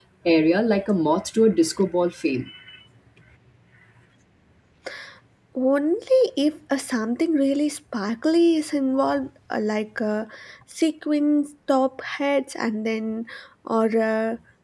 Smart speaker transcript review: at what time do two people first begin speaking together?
none

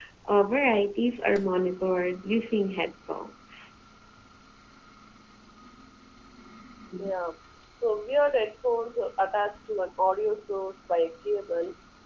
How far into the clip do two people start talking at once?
none

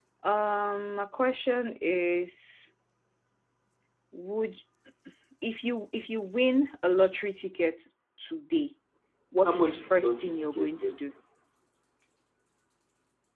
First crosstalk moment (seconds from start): 9 s

